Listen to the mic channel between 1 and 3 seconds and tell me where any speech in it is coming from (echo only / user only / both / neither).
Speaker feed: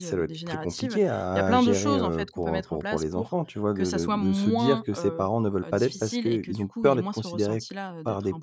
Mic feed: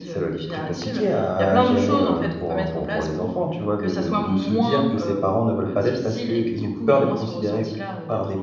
echo only